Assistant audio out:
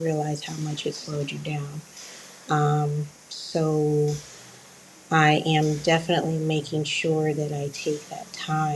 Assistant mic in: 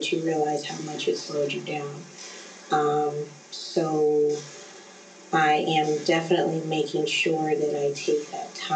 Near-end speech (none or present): none